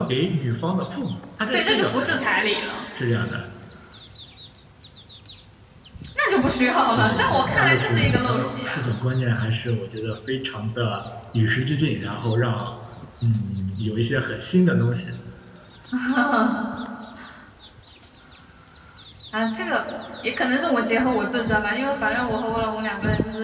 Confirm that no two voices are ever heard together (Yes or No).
No